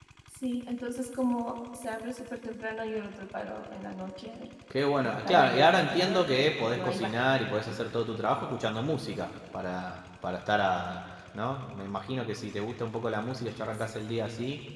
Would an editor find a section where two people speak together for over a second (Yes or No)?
Yes